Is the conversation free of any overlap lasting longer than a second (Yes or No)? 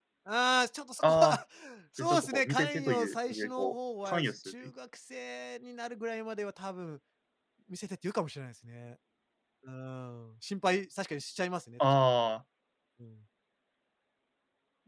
No